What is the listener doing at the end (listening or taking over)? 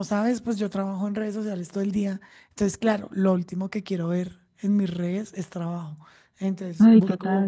listening